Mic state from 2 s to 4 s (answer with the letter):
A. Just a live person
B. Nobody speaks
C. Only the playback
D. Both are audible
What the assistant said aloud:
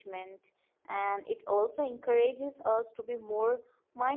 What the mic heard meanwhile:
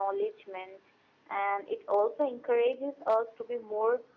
C